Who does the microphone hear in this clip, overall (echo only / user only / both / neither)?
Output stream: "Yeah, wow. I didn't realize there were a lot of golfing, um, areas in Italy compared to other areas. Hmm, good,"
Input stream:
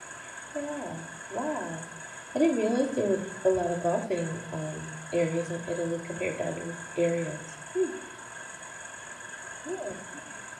echo only